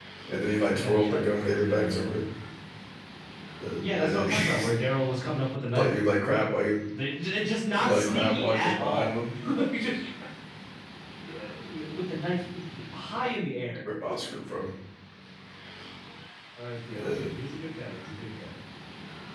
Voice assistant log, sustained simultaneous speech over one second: present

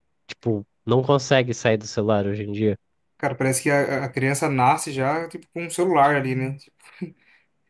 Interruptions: none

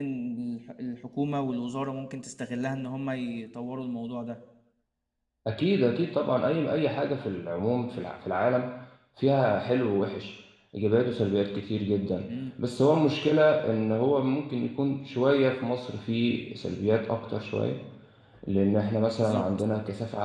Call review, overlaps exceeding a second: none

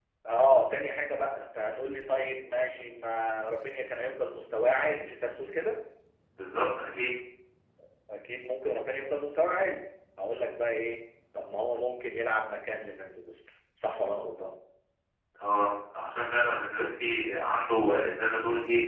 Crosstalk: none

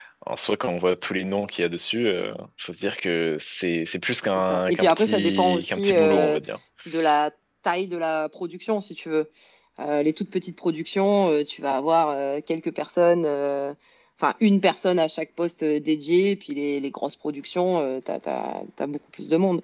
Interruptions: present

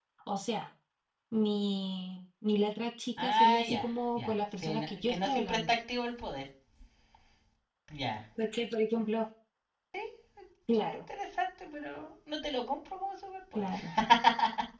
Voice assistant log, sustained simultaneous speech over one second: present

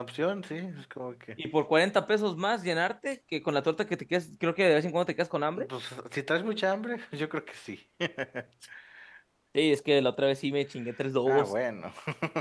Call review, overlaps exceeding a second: none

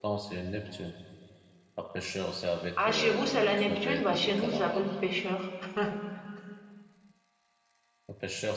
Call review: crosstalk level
present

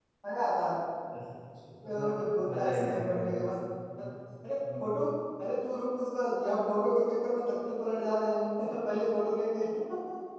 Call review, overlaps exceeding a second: present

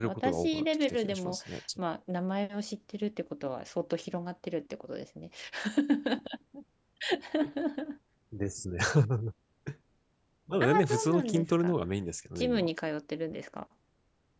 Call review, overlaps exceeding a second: present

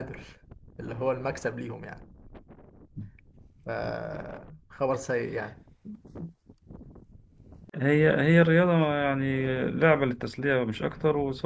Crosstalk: none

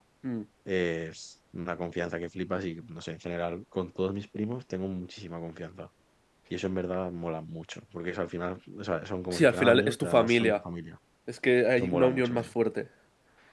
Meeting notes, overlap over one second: present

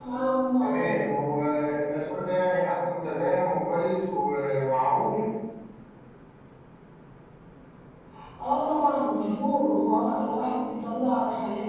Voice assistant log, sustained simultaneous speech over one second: none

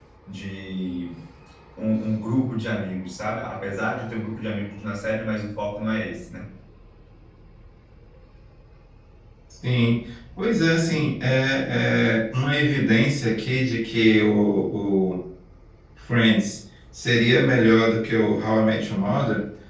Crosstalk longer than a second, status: none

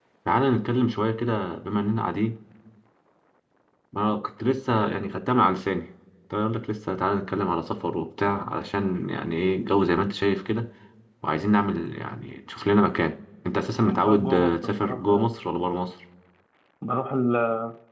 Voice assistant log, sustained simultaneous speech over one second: present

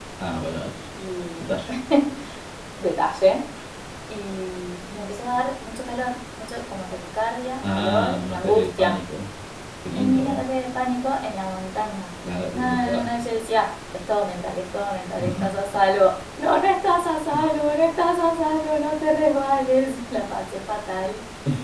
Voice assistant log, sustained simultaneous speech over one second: present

